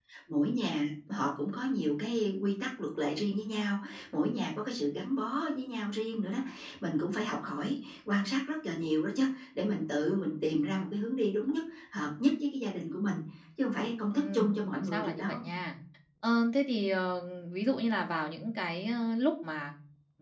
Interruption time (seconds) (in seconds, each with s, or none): 14.2 s